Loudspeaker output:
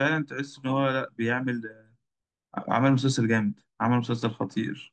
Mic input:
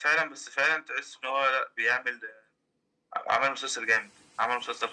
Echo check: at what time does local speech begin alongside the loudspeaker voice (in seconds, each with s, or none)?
none